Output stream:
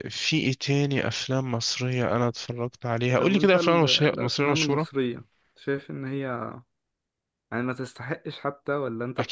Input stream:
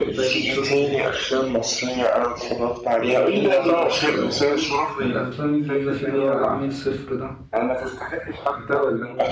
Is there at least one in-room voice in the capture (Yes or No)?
Yes